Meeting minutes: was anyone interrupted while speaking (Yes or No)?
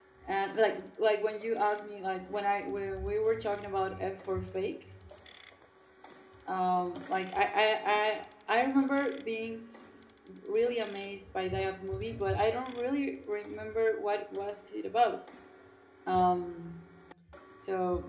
No